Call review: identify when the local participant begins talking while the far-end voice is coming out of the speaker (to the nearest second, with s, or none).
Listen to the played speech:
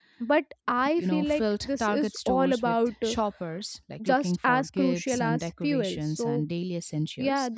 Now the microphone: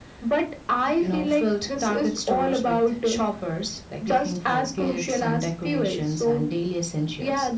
none